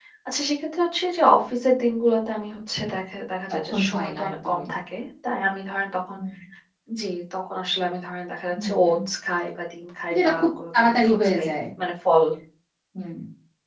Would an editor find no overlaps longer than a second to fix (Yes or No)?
No